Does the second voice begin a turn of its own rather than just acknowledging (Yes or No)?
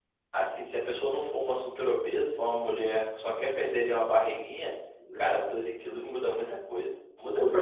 Yes